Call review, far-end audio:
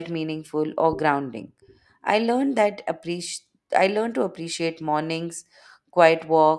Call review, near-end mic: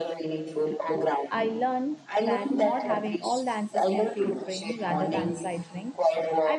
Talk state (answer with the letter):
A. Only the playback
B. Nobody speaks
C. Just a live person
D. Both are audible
D